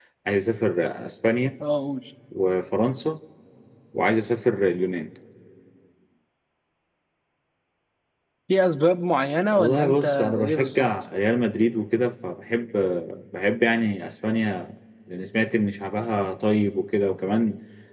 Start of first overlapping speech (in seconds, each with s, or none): 9.5 s